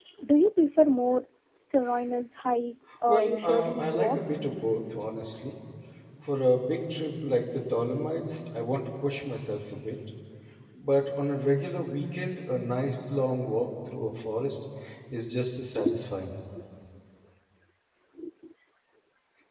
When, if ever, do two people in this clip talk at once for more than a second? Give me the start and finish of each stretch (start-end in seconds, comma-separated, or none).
3.1-4.4